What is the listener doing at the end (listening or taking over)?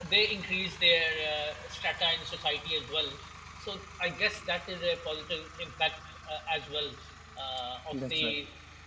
listening